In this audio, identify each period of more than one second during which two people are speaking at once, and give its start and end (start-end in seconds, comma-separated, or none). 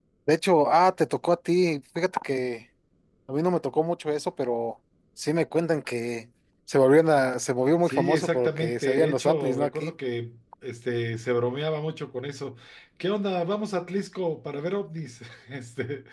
7.9-9.9